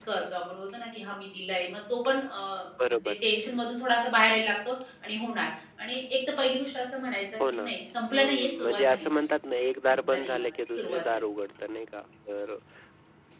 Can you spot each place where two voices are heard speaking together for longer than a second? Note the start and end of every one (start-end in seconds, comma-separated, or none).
8.1-9.3, 9.9-11.2